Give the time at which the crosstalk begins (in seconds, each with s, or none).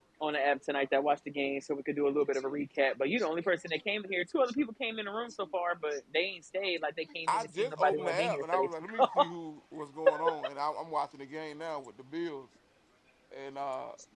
7.3 s